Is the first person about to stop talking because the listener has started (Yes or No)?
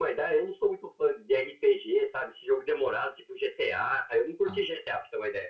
No